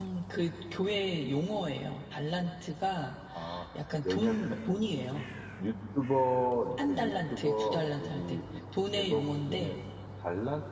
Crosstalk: present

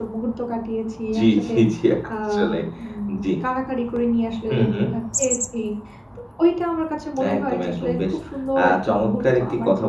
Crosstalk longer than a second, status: present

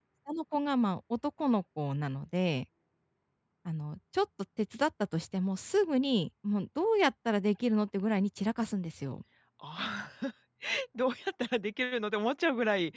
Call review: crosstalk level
none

